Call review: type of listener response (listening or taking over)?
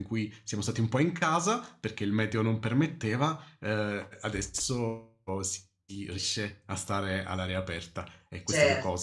listening